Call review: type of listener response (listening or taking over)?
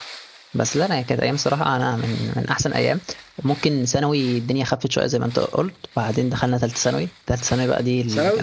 taking over